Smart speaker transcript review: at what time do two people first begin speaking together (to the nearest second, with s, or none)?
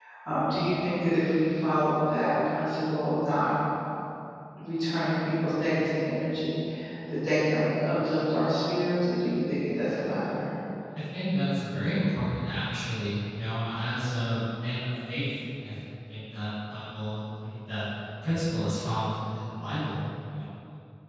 none